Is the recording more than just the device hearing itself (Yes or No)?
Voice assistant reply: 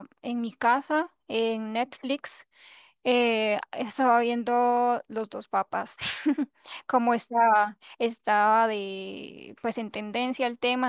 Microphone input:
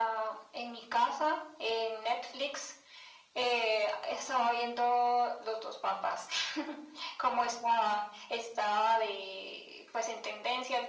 No